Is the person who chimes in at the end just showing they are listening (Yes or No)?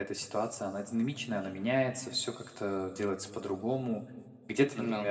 Yes